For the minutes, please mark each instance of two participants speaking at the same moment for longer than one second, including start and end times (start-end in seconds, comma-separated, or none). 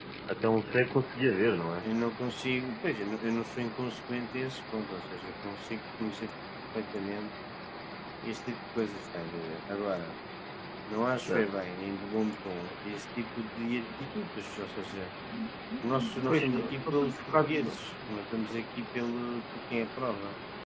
16.3-17.5